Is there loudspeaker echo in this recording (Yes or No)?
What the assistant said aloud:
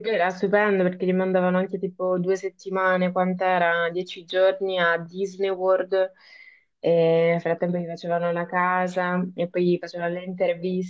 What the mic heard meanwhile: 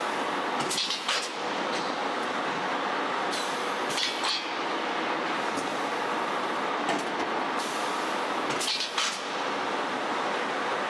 No